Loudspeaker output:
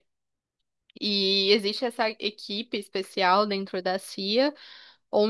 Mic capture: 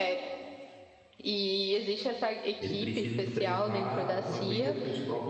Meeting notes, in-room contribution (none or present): present